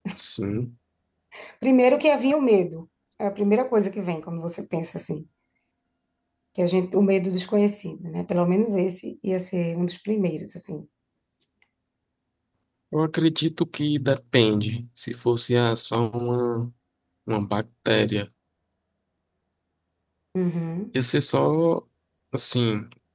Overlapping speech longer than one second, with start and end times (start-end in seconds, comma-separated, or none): none